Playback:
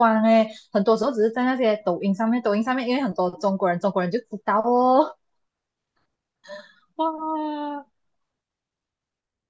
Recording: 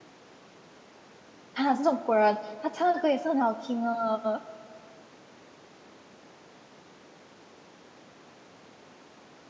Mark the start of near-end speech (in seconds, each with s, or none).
1.5 s